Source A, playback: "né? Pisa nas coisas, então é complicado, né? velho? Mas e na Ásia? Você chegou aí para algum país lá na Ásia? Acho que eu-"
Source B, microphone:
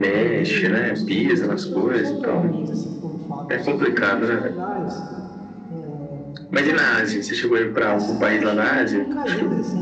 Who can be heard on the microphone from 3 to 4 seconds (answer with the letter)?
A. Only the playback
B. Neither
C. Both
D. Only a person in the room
C